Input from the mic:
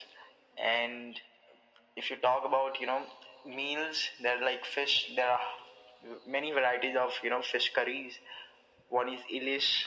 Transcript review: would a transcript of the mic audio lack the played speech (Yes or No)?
No